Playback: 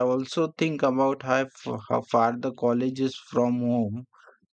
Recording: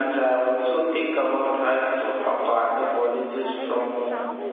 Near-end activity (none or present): present